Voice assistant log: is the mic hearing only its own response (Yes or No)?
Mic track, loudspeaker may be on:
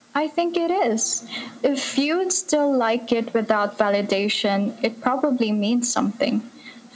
Yes